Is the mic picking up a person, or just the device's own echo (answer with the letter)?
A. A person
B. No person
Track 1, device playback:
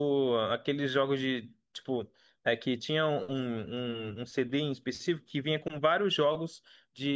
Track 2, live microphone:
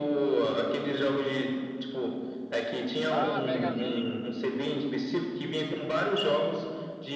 A